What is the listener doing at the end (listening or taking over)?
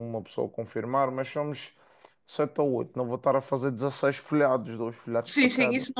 taking over